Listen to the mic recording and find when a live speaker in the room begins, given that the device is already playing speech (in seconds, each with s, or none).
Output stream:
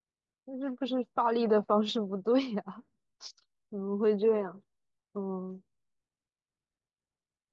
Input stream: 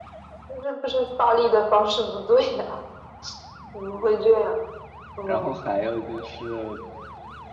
5.2 s